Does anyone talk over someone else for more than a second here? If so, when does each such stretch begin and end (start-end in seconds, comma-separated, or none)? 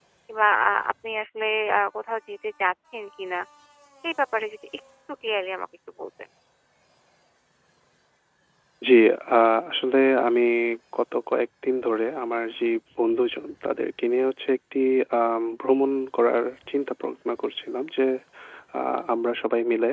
none